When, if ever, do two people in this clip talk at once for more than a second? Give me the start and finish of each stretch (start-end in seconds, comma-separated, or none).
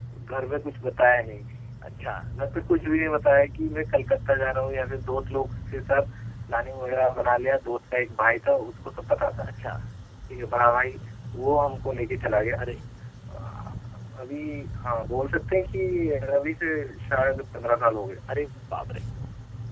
none